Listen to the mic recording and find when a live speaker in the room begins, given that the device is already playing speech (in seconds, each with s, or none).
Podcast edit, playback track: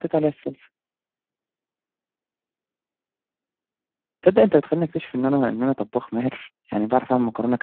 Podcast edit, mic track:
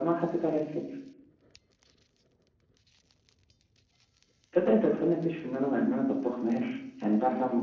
none